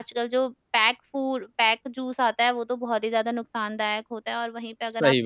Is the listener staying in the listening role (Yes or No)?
Yes